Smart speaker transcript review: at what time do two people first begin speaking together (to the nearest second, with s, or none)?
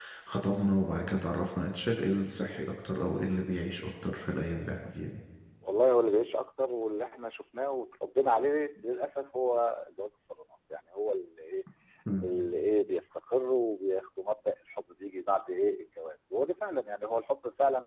none